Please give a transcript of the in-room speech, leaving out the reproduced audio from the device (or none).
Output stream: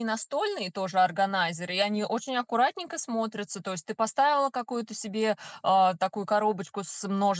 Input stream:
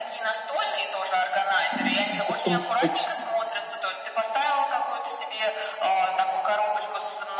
М, как-то, может быть